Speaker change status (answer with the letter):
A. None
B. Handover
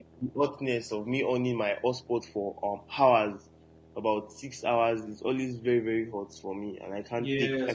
B